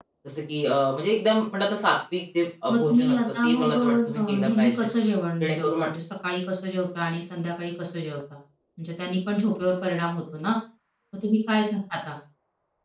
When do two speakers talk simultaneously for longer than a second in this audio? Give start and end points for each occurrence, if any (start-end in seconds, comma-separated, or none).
2.7-4.9